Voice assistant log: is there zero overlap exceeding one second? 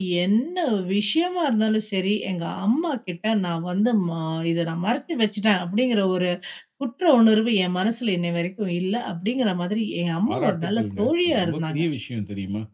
No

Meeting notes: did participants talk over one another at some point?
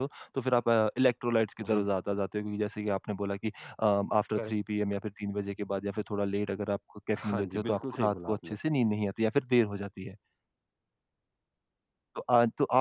Yes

